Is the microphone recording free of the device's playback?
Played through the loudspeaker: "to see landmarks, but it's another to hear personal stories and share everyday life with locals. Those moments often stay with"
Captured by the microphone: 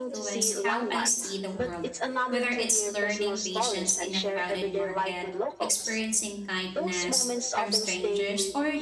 No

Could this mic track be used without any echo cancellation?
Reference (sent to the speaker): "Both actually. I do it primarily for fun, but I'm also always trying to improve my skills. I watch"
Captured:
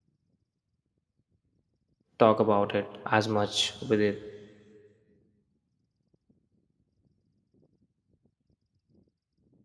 Yes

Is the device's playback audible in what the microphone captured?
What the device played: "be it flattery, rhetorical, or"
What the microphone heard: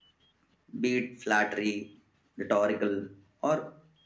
Yes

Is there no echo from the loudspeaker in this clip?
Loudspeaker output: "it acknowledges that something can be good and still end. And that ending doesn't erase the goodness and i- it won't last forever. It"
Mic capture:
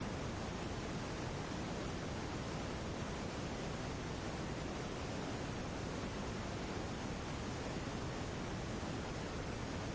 Yes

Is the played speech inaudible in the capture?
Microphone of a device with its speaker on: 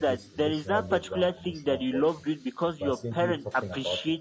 No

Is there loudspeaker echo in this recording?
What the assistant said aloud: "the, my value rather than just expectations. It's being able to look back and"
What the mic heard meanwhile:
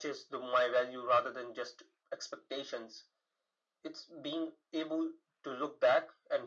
Yes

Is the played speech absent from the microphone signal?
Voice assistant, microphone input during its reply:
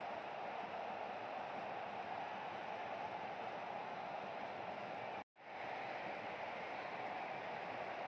Yes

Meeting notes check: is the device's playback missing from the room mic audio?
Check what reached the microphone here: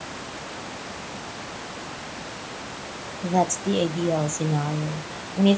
Yes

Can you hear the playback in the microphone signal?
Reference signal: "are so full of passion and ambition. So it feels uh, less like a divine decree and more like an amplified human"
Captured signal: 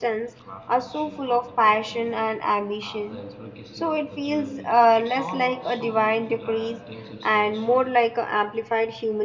Yes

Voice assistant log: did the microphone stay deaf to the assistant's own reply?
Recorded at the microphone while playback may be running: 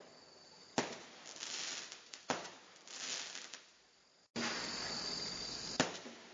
Yes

